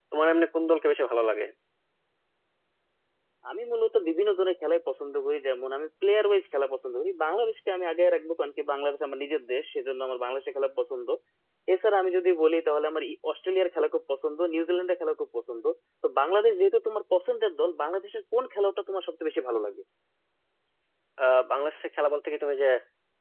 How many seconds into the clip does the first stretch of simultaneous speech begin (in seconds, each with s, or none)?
none